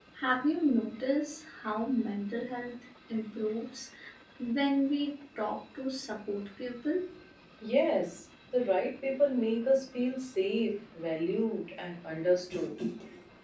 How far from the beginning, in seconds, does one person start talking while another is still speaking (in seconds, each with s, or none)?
none